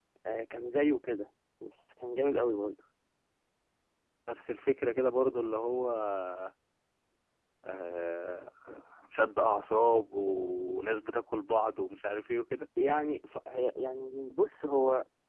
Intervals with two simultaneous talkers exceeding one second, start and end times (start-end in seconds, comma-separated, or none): none